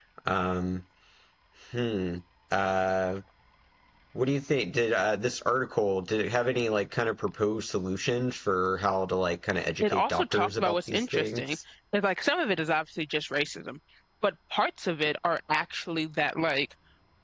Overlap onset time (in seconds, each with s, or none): 9.8 s